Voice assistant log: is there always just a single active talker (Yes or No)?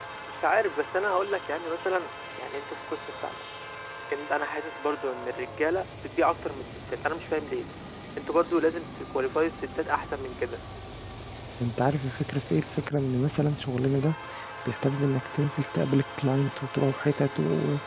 Yes